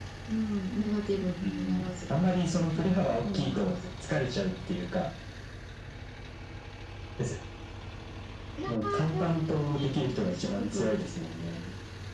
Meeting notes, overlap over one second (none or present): present